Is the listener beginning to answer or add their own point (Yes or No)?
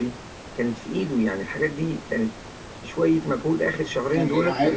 Yes